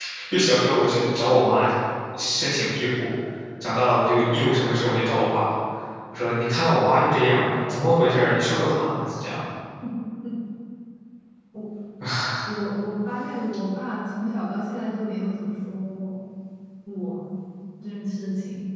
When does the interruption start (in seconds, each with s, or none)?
none